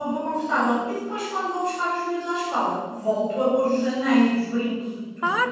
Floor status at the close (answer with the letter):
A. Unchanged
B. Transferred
B